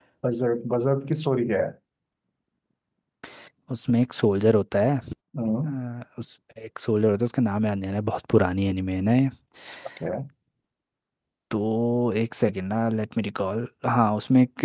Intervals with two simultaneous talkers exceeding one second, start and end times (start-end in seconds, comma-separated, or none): none